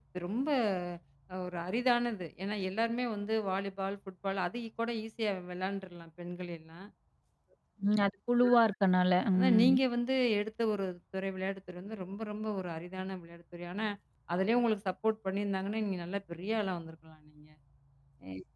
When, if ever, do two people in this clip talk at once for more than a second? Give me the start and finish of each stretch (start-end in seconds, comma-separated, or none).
none